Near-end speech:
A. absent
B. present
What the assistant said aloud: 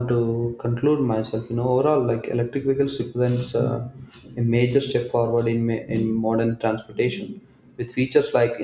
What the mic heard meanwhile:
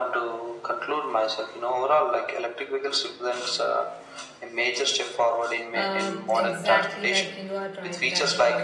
B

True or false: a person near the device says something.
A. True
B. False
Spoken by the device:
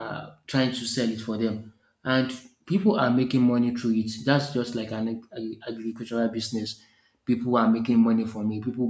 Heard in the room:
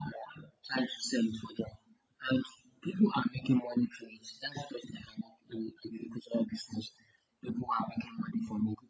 B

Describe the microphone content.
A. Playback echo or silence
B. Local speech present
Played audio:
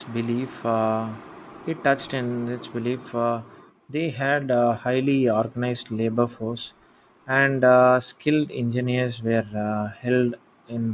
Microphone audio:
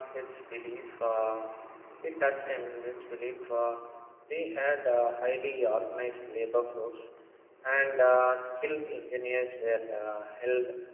A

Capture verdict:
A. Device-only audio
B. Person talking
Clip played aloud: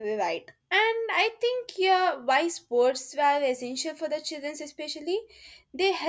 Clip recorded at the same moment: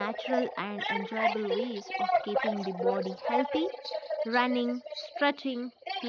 B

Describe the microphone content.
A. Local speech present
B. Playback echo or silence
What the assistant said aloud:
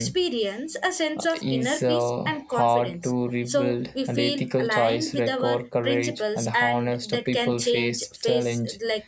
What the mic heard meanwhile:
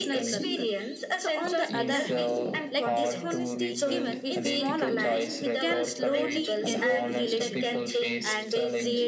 A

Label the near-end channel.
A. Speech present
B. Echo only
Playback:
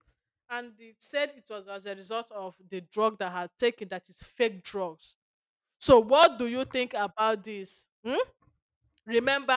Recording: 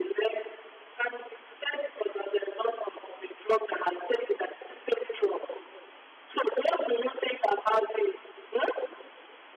B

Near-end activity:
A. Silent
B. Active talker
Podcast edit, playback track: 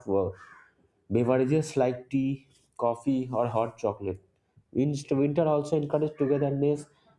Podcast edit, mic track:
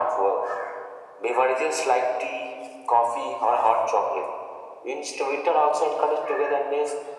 A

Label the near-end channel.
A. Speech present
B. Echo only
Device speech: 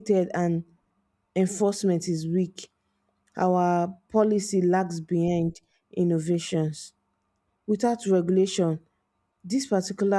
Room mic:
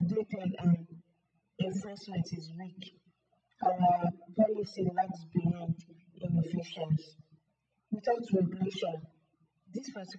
B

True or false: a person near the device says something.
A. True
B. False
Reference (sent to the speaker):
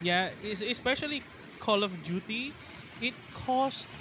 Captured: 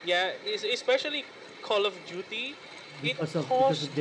A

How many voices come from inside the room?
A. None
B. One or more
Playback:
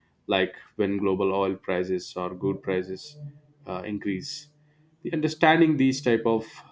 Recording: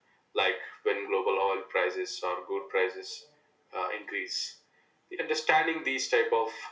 A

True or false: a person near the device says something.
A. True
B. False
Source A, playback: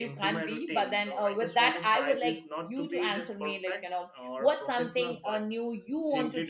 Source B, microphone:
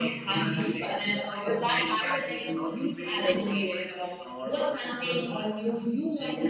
A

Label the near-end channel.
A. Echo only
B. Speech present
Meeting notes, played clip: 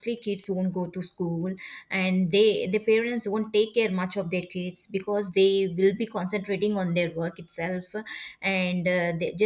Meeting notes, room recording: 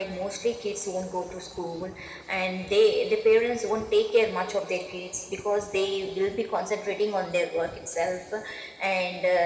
A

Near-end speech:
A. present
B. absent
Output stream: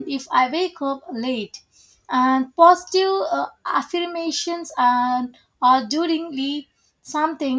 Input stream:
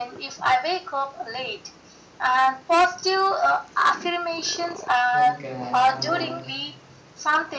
A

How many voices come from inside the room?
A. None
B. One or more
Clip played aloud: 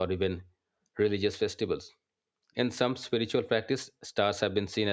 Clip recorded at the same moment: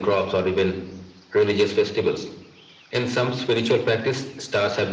A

